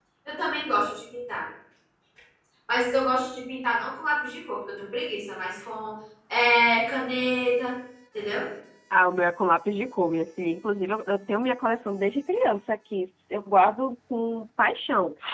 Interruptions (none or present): none